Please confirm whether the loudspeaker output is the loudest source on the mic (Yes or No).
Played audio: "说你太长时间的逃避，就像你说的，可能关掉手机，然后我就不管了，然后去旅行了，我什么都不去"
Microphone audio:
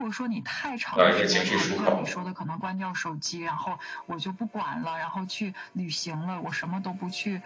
No